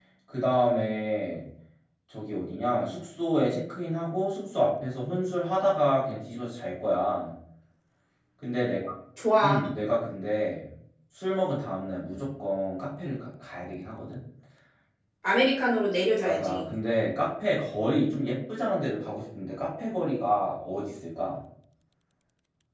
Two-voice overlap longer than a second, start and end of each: none

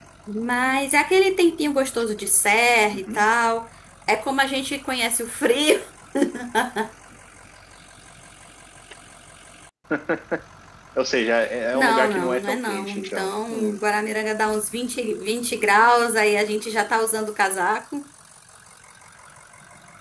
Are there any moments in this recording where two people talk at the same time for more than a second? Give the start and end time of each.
11.7-13.8

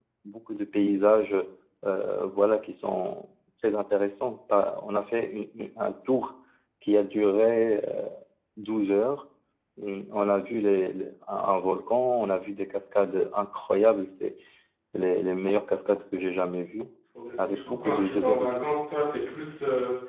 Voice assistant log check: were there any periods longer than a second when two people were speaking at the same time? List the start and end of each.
17.4-18.7

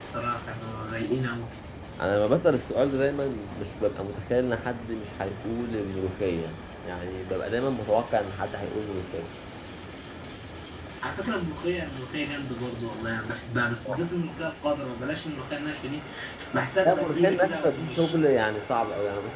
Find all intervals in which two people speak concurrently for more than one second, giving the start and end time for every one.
16.9-18.1

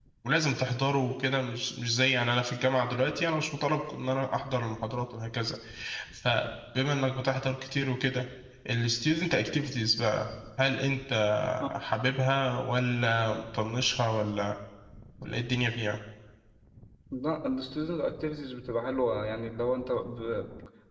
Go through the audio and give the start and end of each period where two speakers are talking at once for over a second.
none

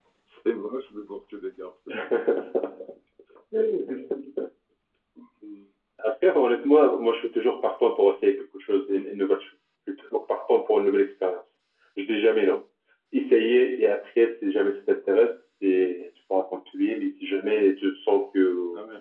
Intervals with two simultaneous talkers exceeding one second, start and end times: none

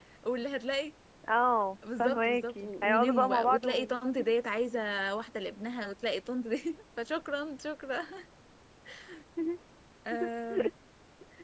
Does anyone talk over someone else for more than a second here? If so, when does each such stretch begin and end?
2.0-3.9

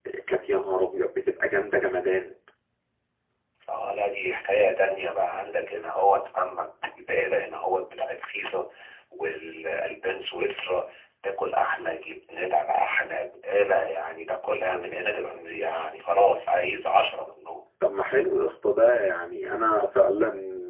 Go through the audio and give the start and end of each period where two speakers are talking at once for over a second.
none

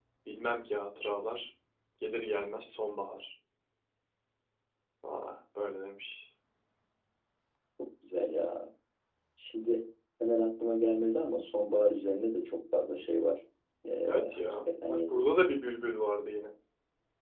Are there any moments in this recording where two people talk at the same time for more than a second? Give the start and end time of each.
14.1-15.3

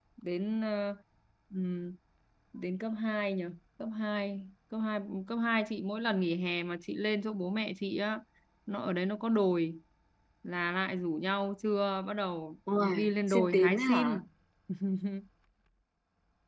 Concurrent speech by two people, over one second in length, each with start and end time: 12.8-14.2

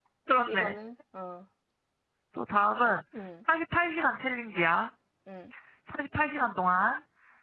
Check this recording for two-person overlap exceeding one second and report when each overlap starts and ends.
none

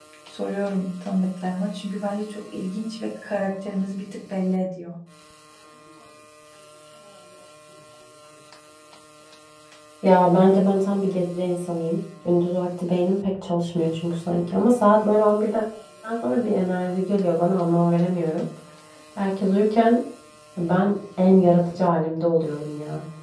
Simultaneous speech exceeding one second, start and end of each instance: none

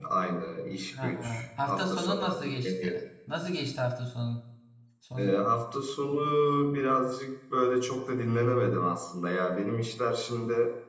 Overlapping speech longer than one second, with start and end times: 1.0-3.0

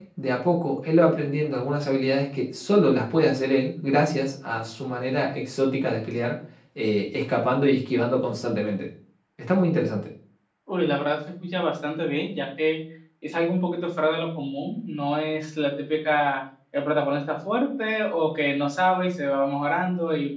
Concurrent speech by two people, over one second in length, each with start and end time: none

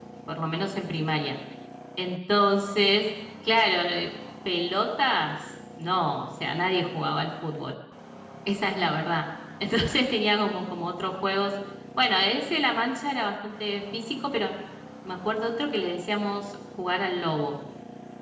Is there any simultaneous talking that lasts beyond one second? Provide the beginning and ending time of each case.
none

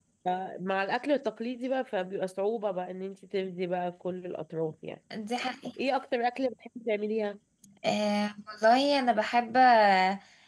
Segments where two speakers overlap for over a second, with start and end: none

